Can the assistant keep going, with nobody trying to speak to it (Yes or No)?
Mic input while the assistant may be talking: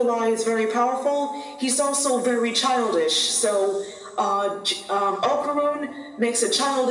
Yes